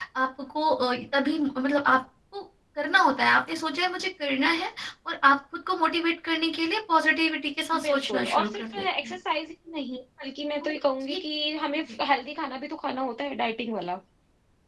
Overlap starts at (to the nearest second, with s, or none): 8 s